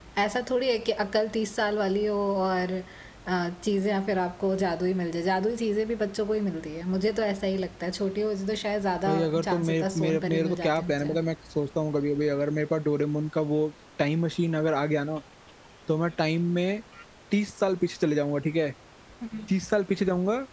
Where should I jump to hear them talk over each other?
9.0 s

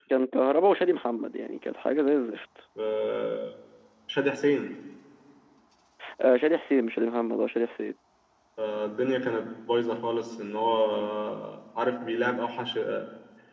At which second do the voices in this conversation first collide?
none

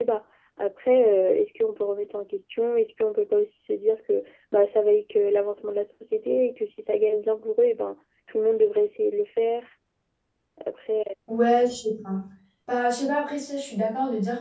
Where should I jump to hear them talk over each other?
none

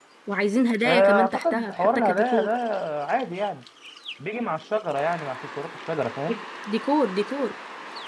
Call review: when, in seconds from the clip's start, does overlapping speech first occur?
0.8 s

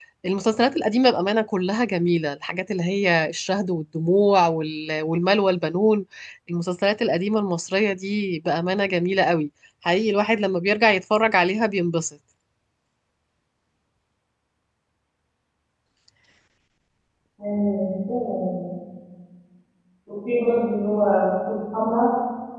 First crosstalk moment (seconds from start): none

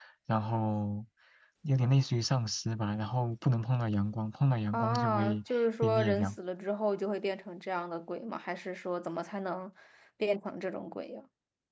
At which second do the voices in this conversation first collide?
4.7 s

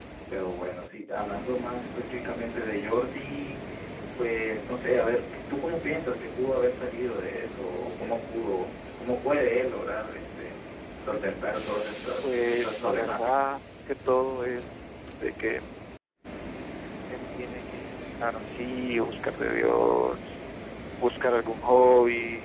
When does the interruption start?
12.2 s

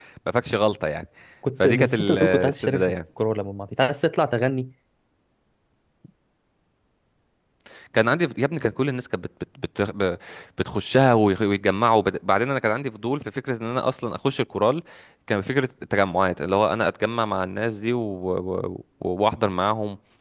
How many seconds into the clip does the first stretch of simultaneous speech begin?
1.6 s

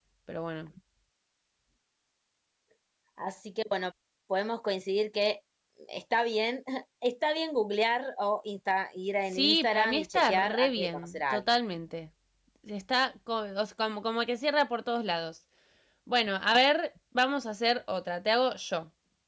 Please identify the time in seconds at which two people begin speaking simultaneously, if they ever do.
9.3 s

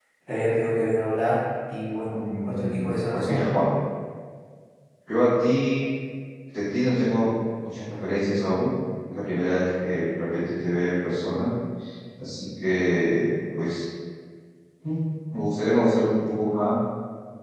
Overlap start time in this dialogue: 2.1 s

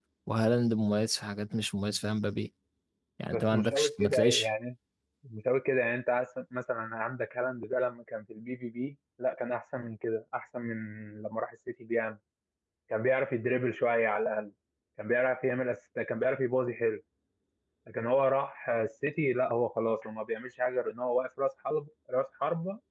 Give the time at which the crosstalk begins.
3.3 s

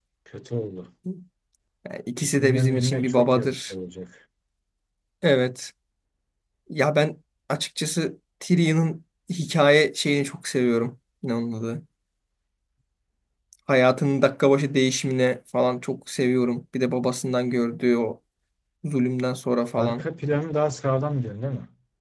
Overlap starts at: 2.2 s

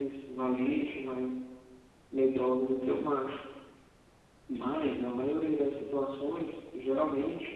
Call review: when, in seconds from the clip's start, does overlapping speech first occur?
none

